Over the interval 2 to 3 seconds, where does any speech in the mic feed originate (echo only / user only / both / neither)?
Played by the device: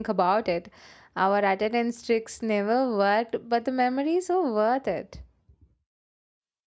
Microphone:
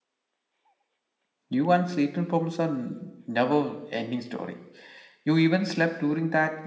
user only